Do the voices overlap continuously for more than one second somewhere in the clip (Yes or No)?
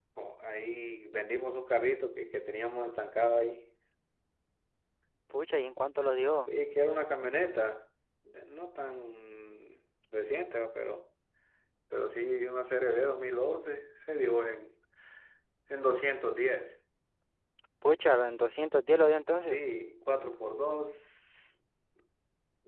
No